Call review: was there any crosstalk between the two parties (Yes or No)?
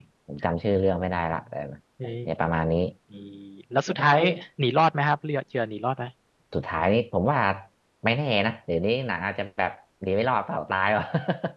No